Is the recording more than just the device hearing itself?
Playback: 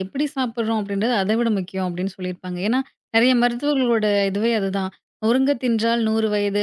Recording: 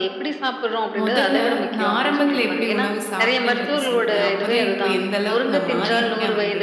Yes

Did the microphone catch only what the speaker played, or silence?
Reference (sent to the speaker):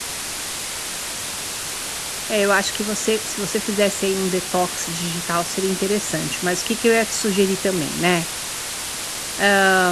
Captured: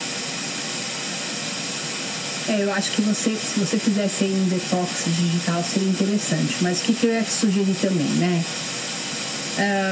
Yes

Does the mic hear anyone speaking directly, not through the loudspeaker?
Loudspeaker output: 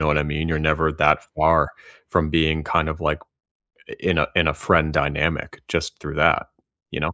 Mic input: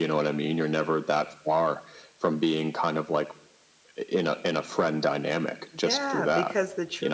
Yes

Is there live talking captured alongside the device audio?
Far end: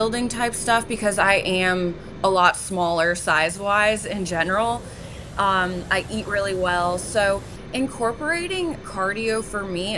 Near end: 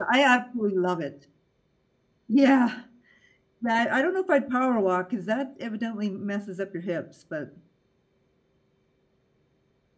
Yes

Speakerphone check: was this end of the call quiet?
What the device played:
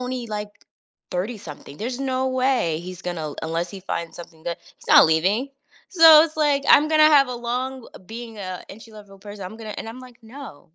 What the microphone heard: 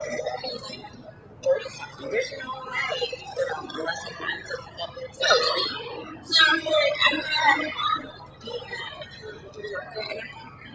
Yes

